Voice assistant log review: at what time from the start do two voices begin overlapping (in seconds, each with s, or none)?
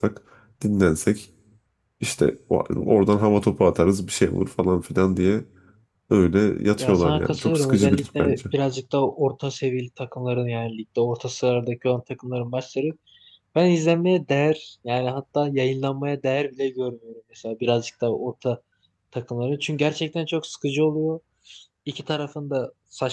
6.8 s